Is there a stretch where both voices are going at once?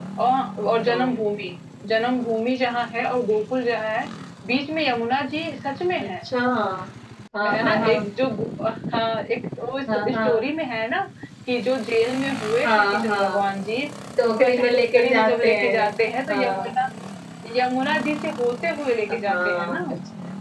Yes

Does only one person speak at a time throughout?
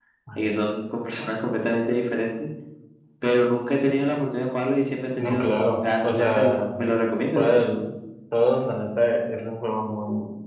No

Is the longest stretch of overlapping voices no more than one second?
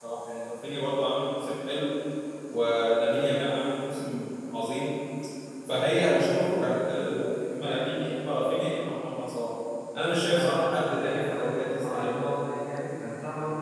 No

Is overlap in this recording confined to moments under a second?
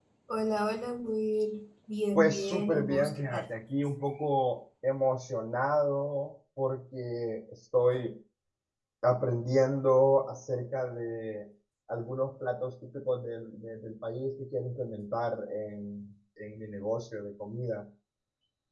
No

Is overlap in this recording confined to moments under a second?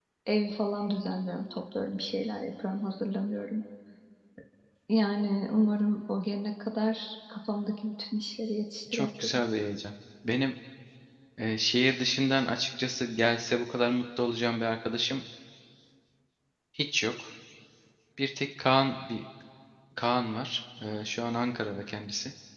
Yes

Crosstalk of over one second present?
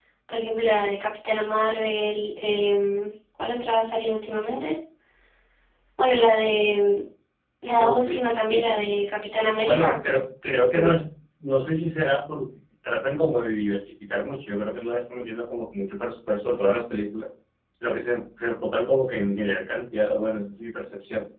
Yes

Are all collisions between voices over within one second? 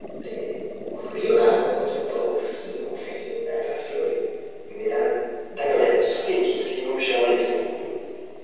Yes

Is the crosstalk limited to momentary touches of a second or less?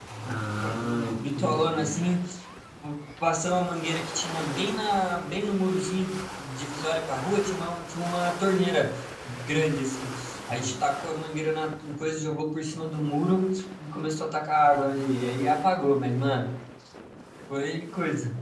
No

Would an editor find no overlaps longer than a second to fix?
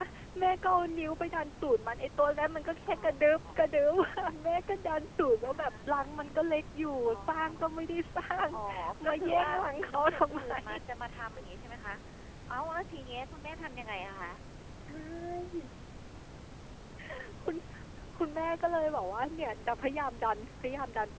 No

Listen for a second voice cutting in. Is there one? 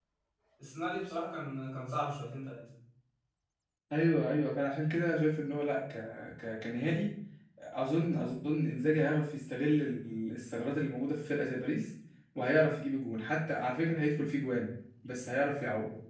No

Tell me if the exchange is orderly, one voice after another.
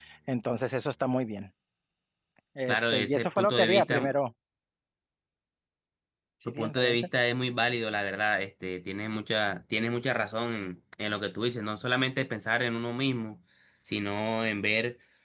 No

